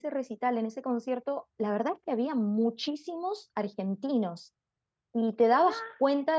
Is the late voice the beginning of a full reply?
No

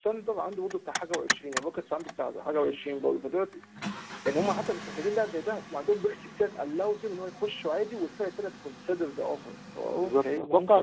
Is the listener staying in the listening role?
No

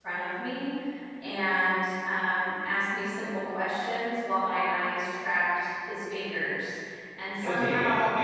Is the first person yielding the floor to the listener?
Yes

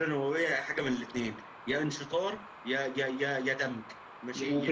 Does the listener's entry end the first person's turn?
Yes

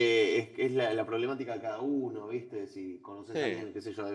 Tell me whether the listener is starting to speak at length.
No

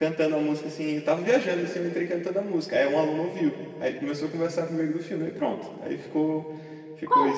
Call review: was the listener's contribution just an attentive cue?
No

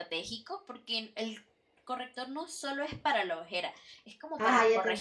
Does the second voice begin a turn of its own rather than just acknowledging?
Yes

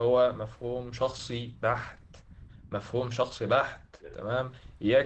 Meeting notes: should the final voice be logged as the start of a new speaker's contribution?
No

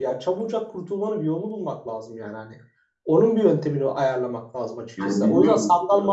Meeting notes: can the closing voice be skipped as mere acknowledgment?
Yes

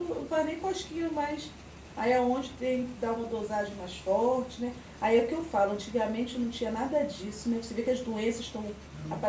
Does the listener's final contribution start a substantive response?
No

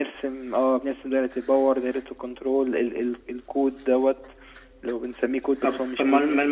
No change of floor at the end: No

